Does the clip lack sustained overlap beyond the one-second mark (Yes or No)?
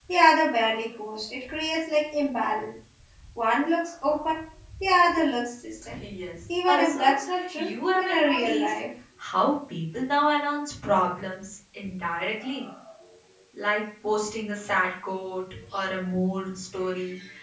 No